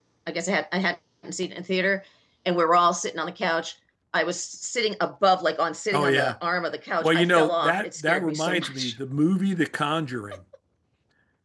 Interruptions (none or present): present